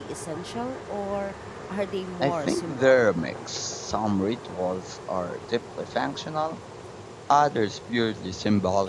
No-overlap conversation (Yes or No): No